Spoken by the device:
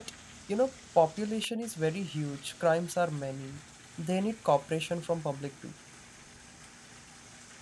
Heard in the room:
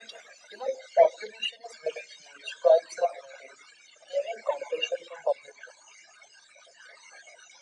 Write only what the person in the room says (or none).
none